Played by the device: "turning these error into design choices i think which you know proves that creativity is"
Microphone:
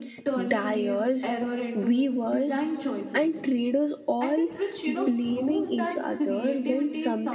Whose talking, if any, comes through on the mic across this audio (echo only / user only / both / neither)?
both